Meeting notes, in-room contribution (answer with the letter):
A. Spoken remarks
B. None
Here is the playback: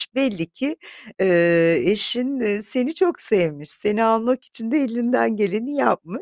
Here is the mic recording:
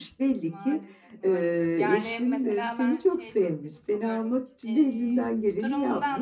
A